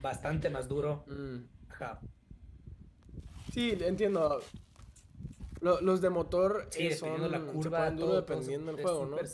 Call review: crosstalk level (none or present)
present